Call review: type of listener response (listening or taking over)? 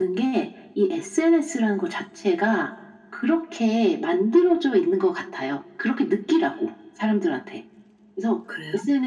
listening